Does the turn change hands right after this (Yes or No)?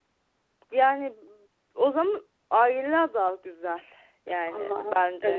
Yes